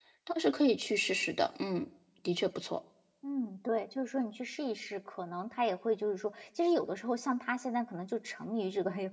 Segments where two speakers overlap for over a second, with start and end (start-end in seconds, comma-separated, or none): none